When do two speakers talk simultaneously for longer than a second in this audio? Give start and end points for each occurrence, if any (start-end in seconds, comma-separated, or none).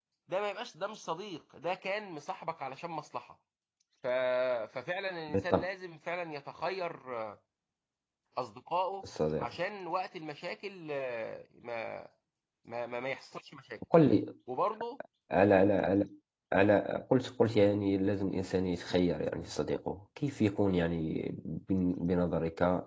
none